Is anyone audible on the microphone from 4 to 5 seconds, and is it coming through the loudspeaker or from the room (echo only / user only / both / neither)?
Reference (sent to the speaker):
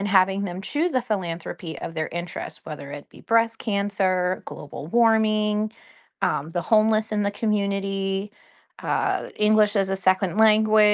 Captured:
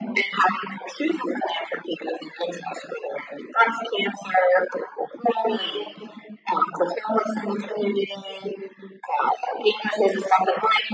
echo only